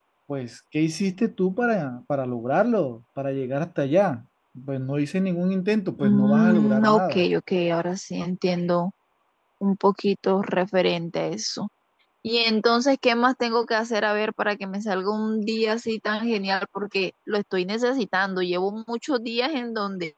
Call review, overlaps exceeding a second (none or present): present